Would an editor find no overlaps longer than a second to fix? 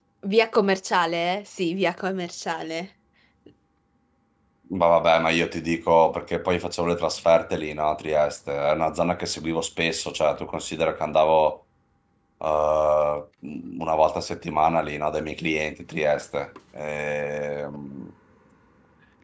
Yes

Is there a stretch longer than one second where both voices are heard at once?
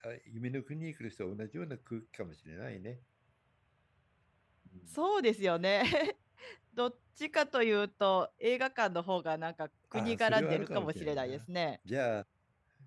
Yes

